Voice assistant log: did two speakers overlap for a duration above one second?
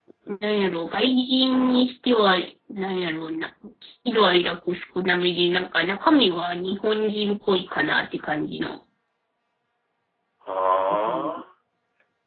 No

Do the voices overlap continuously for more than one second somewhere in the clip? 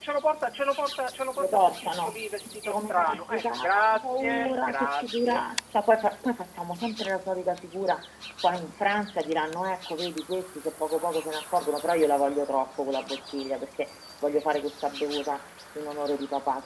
Yes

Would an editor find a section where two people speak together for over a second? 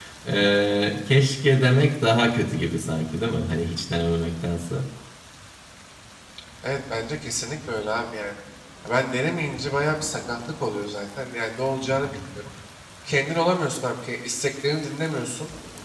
No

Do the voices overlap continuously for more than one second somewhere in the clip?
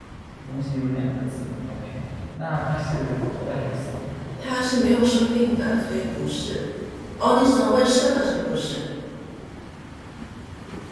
No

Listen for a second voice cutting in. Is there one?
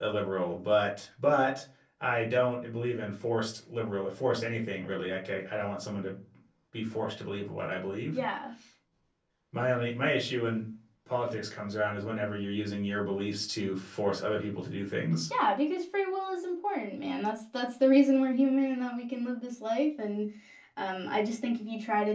No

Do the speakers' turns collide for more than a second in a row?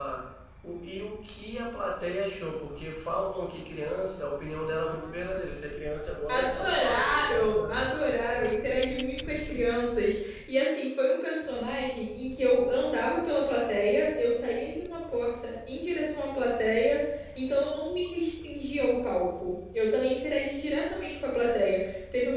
Yes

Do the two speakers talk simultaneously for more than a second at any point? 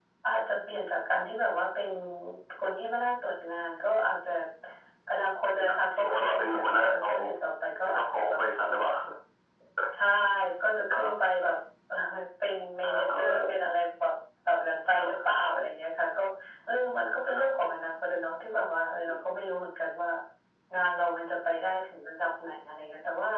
Yes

